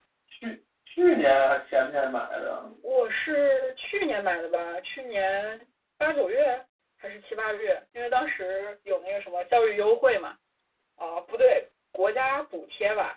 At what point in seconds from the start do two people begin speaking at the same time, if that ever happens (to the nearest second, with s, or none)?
none